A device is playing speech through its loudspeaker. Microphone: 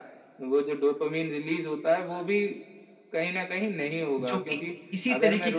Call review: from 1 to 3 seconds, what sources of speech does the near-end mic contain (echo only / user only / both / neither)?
echo only